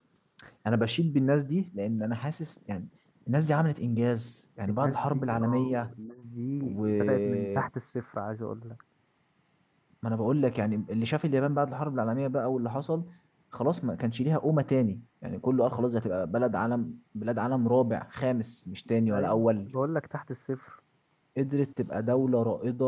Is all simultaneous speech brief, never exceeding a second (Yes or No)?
No